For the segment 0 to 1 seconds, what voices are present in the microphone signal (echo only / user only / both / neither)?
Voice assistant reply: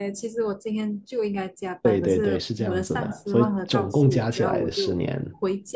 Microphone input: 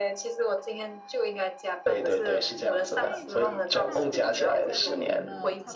echo only